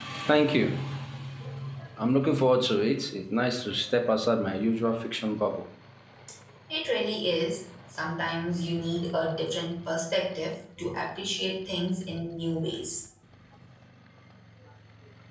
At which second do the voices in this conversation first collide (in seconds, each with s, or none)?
none